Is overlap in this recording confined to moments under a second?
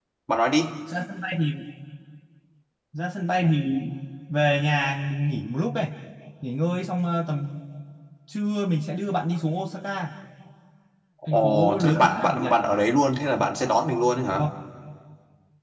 No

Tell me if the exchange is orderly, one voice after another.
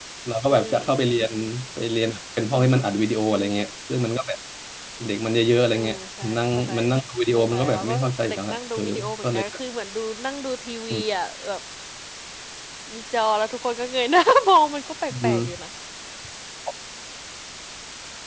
No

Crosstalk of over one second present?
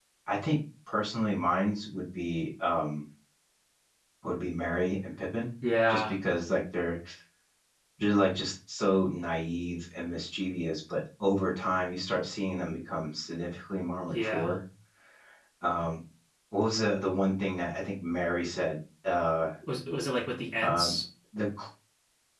No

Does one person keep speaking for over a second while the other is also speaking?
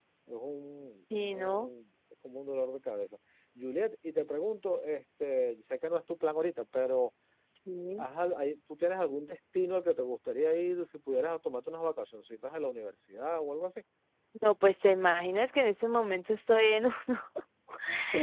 No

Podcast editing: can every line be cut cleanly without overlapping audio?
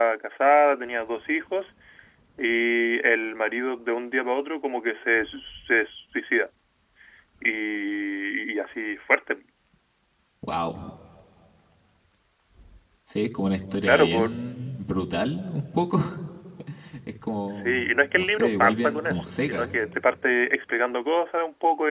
No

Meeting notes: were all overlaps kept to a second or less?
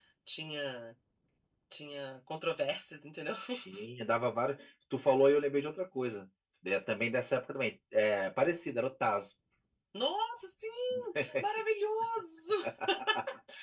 Yes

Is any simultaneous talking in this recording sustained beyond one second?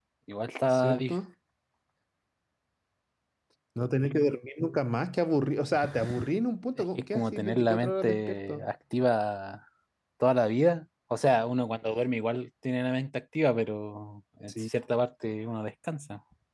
Yes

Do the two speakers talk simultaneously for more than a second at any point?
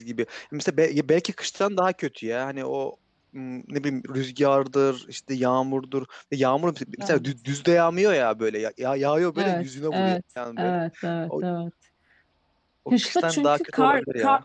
Yes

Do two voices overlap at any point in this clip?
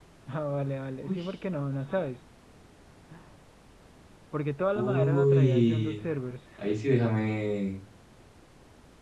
Yes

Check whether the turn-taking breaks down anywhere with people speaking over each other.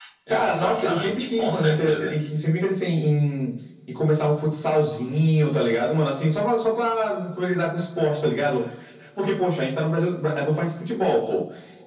Yes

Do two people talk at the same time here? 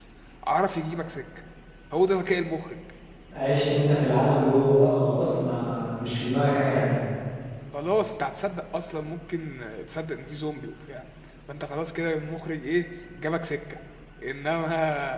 No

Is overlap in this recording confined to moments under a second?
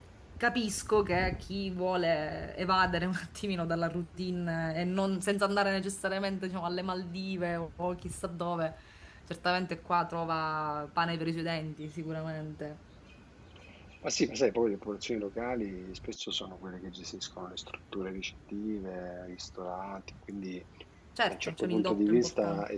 No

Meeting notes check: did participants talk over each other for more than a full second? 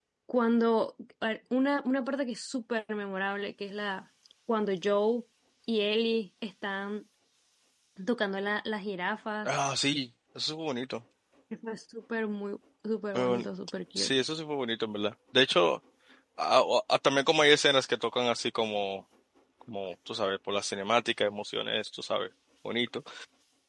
No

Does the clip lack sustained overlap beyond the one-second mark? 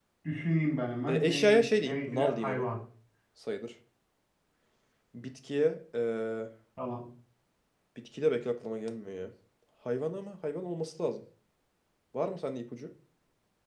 No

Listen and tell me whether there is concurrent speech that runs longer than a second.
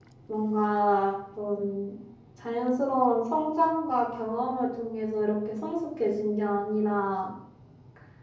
No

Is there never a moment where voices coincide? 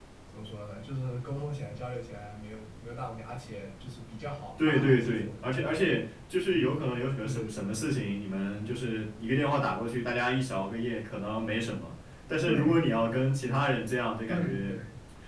No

